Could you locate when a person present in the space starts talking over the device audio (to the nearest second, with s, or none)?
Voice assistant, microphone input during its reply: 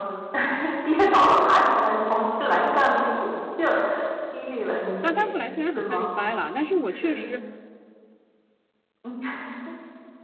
5 s